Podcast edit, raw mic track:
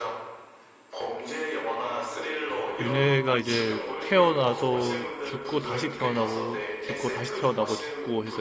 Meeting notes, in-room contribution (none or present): present